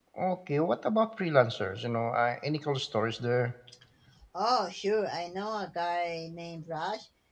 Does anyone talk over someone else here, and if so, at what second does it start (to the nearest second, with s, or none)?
none